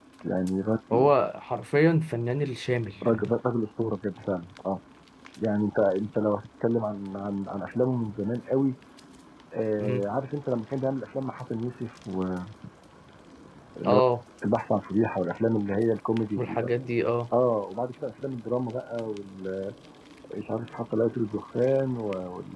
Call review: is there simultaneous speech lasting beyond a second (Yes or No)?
No